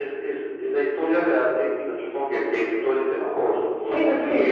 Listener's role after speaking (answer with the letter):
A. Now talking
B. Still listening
A